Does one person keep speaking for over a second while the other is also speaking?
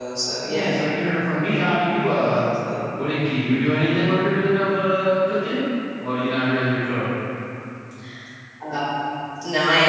No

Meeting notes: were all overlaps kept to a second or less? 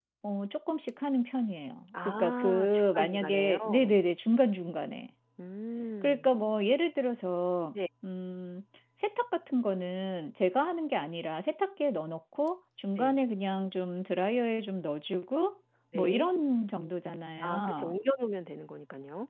No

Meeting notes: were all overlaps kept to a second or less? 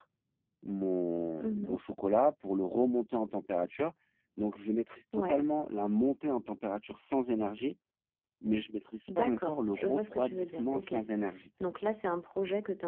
No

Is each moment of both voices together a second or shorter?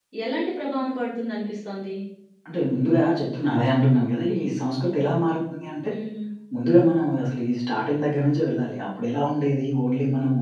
Yes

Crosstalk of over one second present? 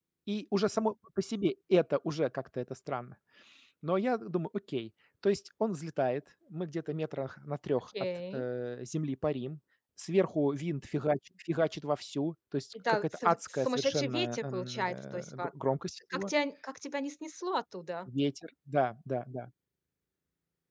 Yes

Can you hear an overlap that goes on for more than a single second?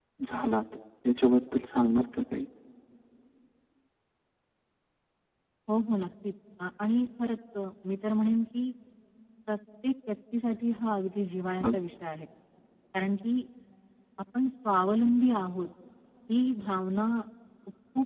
No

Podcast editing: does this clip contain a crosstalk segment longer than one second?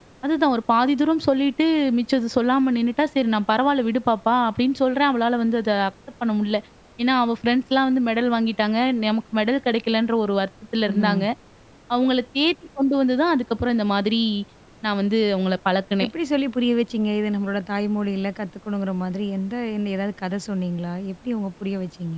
No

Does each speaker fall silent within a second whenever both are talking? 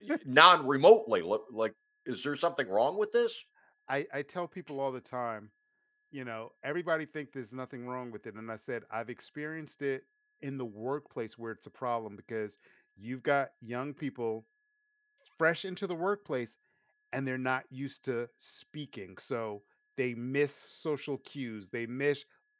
Yes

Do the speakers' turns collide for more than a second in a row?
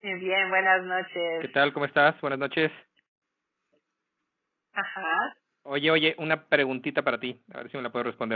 No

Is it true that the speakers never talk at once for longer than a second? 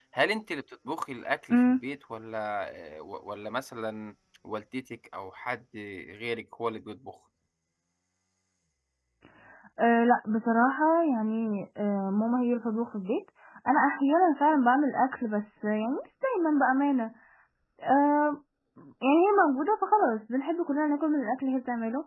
Yes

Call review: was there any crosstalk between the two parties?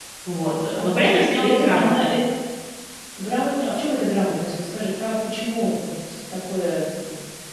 Yes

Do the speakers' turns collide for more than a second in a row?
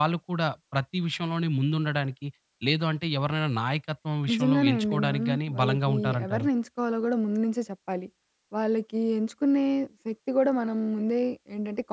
Yes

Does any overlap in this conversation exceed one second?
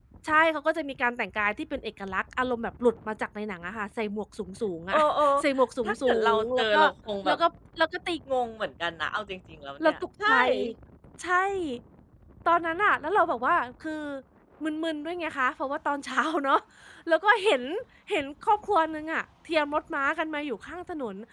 Yes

